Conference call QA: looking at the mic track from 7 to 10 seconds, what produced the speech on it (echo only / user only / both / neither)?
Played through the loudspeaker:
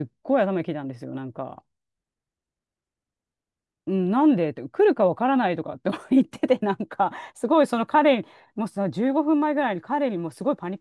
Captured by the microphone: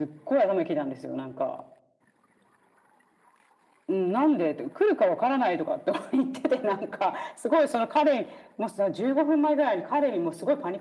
echo only